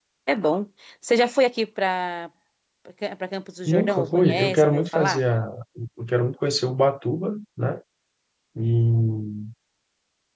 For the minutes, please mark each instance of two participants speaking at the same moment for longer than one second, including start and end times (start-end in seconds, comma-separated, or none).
3.6-5.2